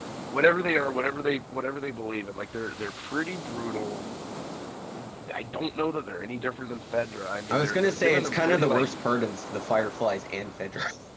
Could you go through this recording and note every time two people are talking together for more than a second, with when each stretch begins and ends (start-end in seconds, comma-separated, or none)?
7.5-9.1